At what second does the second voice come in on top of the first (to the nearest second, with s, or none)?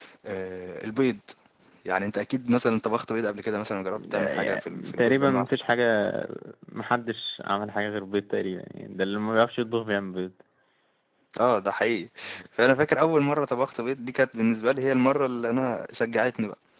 4 s